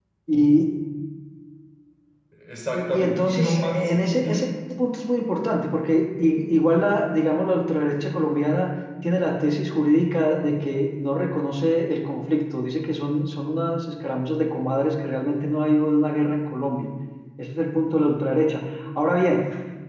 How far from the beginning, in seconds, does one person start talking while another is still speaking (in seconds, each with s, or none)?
2.7 s